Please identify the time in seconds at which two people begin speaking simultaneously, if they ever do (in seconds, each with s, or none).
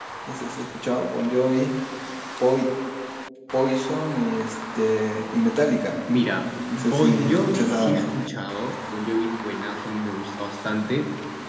6.7 s